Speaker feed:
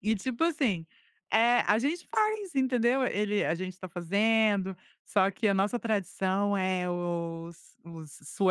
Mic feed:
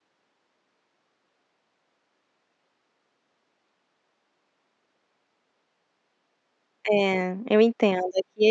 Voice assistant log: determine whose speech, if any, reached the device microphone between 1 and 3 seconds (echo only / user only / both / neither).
neither